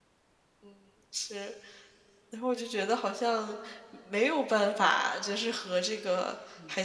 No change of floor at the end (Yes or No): Yes